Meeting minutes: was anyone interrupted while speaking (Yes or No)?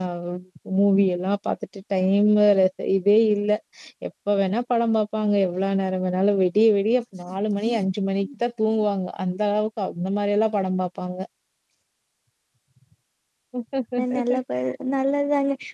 No